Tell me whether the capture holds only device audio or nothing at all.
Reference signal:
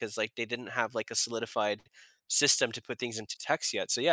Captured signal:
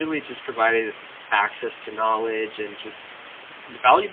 No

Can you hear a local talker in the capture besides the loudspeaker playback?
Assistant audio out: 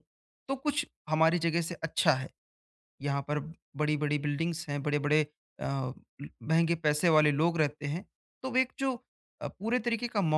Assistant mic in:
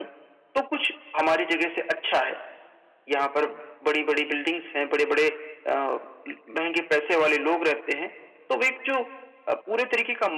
No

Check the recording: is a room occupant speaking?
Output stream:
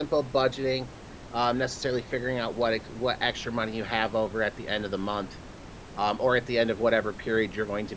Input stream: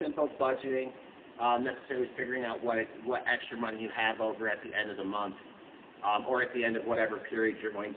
No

